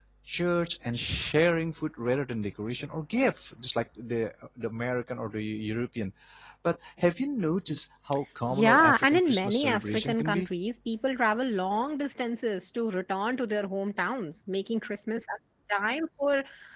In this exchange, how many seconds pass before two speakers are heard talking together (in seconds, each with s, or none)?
8.4 s